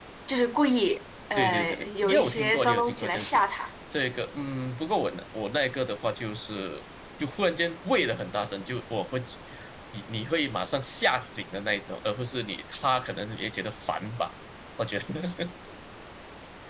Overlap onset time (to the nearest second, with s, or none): 1 s